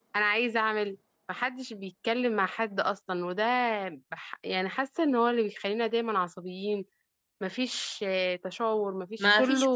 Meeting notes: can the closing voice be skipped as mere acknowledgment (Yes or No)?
No